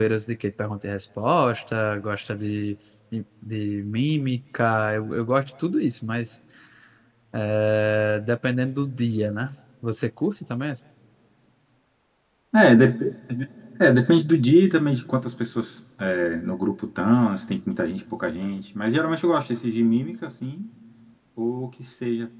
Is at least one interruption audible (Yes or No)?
No